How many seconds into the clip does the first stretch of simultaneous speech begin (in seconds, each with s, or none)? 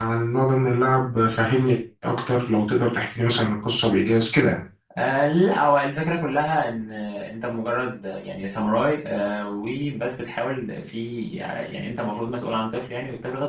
none